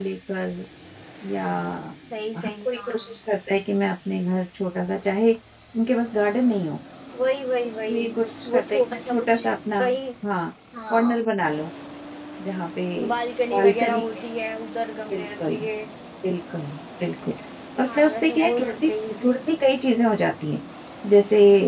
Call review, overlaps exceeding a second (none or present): present